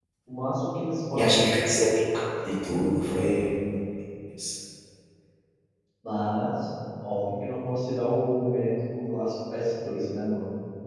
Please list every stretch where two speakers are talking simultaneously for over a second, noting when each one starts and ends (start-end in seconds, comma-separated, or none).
none